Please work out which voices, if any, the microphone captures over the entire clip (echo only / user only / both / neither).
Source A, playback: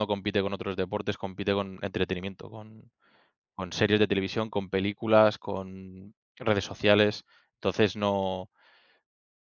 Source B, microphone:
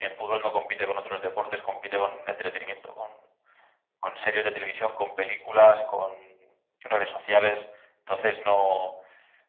echo only